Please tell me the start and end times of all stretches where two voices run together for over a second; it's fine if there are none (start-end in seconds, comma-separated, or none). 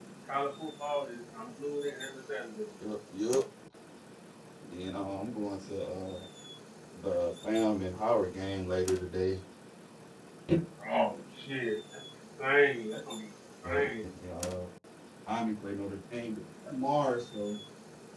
none